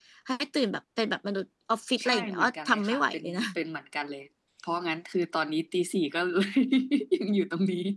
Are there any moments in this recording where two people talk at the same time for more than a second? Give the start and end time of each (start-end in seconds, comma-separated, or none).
2.0-3.4